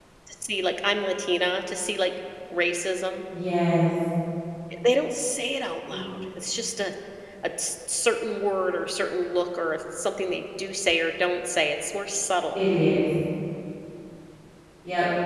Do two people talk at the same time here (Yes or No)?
No